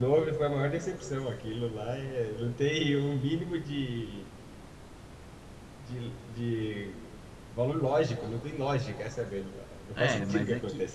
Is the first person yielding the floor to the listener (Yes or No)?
Yes